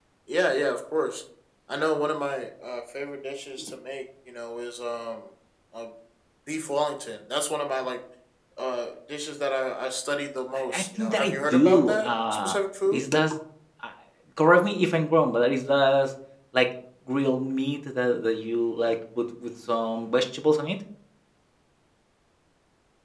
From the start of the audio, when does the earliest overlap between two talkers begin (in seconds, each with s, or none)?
10.7 s